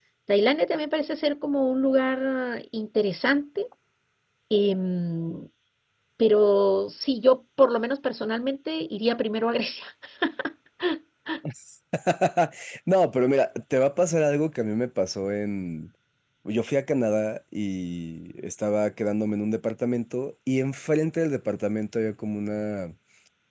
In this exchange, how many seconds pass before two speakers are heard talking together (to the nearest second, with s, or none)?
none